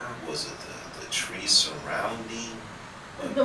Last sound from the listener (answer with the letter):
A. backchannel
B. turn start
B